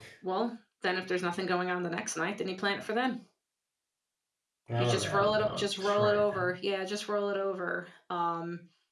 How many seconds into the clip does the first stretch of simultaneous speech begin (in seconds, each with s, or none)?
4.8 s